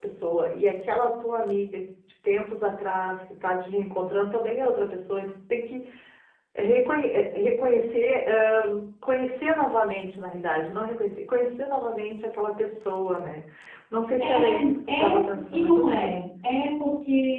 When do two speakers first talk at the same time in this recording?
14 s

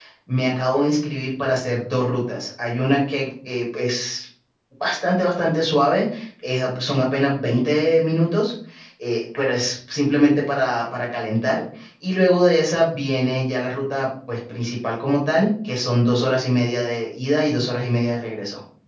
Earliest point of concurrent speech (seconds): none

